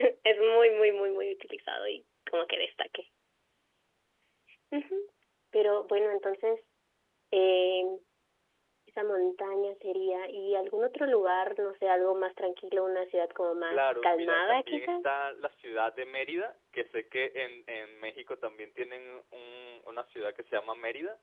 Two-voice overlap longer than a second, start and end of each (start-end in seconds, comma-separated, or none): 13.7-14.9